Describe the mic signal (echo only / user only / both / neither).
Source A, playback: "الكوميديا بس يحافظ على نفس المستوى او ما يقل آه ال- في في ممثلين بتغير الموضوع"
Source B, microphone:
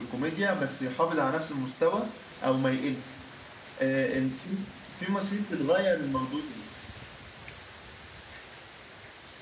echo only